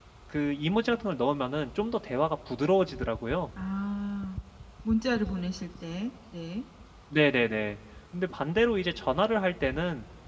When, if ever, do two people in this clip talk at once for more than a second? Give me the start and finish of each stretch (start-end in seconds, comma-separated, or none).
none